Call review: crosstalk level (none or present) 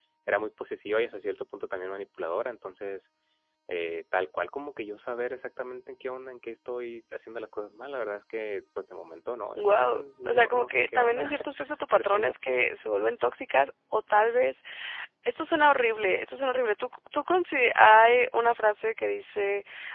present